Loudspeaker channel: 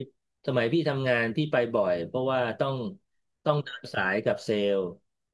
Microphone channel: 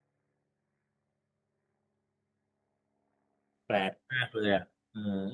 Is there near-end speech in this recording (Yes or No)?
Yes